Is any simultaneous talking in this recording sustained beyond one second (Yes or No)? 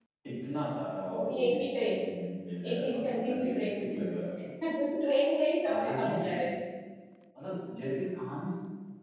Yes